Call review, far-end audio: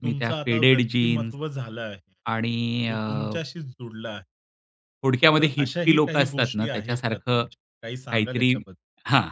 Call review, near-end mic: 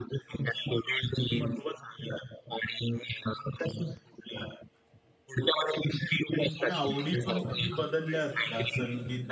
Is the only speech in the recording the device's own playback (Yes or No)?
No